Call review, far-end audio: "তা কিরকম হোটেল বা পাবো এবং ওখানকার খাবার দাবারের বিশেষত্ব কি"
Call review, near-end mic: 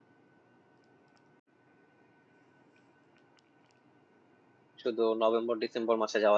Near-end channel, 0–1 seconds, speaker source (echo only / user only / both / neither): neither